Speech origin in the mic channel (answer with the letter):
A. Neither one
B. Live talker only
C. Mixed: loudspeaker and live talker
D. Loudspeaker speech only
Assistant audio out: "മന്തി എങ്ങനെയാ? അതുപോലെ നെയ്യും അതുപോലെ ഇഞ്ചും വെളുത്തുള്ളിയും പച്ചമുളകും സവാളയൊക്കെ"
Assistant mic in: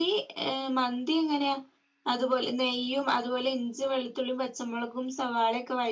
D